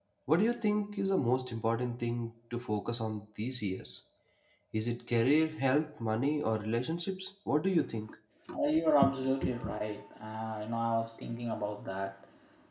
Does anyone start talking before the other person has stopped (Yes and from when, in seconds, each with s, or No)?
No